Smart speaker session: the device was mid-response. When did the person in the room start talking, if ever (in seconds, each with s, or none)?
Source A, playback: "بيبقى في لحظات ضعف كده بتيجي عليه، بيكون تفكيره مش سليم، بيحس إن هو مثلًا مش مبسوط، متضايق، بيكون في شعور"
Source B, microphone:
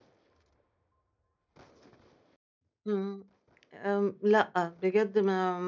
2.9 s